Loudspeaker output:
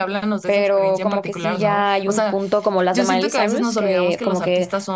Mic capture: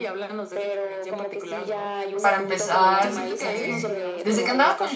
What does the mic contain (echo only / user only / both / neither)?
both